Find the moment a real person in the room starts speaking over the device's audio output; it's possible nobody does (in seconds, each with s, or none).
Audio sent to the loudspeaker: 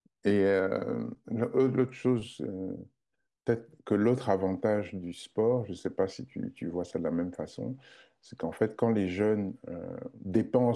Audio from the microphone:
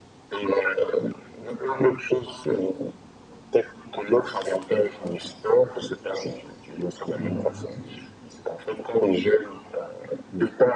7.1 s